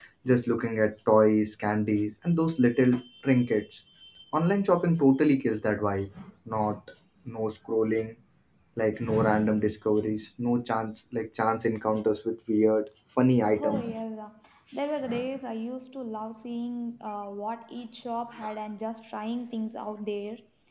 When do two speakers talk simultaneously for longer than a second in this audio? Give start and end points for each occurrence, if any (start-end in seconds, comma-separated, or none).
none